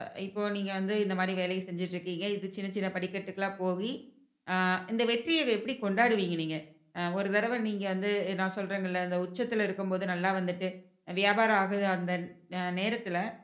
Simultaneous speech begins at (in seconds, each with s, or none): none